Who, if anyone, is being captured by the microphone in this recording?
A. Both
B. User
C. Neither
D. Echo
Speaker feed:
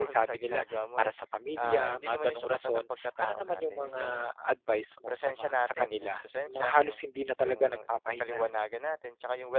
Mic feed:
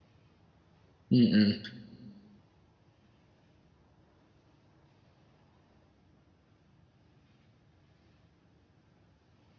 B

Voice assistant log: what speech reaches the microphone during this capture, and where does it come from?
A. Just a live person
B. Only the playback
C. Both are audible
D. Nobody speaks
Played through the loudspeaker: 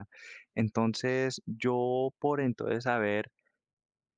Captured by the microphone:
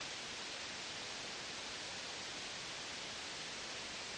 D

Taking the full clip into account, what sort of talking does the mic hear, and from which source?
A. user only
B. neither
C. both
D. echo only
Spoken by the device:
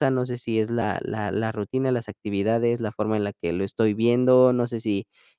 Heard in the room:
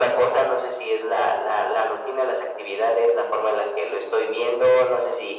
D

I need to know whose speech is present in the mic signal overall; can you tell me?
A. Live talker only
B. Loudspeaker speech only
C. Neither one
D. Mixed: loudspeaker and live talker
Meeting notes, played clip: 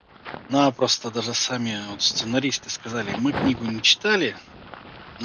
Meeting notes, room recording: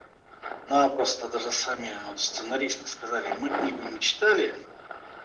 B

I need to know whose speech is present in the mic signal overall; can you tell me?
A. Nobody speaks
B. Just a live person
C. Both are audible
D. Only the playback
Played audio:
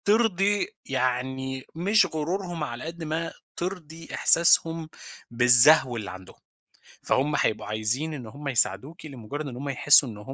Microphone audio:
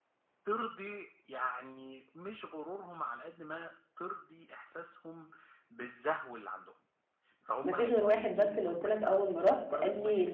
C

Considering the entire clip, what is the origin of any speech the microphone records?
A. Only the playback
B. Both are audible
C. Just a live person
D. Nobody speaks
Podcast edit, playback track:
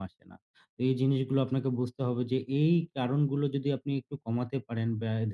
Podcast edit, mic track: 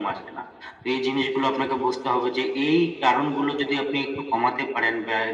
A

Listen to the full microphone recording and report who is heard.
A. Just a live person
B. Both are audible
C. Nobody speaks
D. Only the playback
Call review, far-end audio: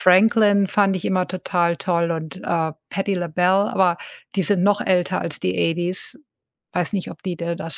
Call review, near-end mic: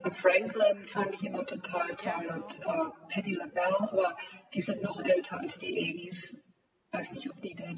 B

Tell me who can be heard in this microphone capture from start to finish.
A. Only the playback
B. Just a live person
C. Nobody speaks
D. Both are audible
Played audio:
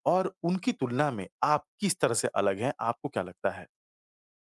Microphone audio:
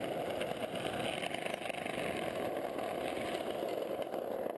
C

